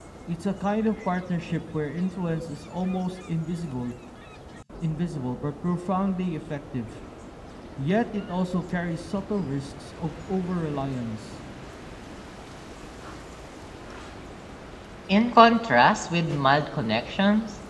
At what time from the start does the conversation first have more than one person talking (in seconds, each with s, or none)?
none